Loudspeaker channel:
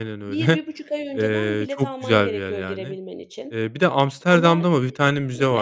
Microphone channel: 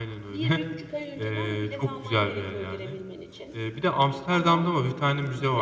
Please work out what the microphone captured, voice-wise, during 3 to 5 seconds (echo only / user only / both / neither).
echo only